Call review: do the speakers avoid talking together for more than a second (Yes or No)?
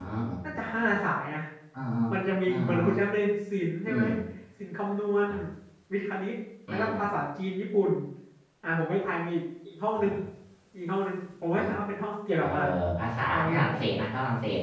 Yes